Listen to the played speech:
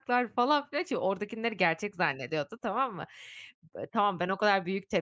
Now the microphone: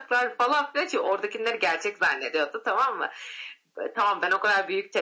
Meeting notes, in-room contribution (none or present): none